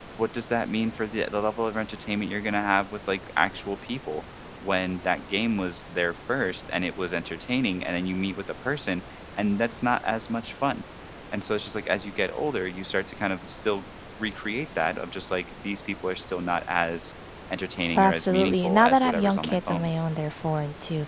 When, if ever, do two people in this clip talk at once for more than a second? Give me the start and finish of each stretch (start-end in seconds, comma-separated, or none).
17.9-19.9